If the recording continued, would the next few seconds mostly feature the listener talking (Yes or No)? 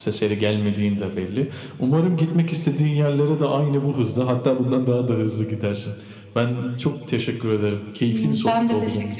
Yes